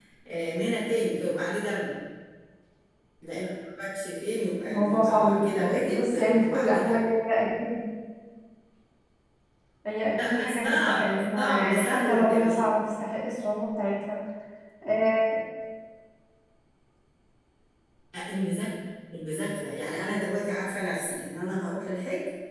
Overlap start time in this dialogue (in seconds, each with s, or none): 4.7 s